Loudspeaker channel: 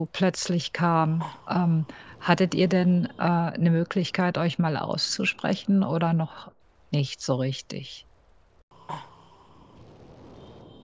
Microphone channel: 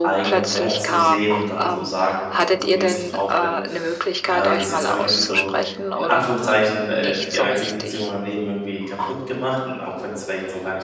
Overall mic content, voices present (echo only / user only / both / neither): both